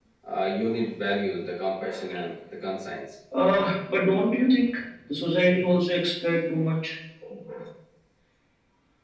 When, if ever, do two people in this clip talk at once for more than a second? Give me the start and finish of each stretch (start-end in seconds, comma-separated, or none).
none